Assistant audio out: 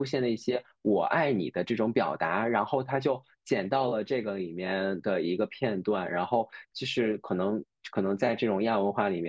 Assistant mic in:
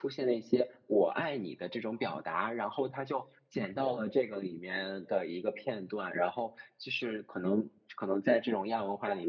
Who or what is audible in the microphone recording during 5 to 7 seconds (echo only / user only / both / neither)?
echo only